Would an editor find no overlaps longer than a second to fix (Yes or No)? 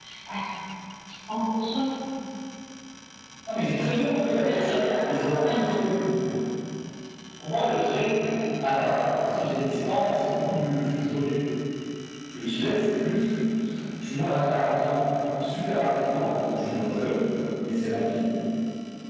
No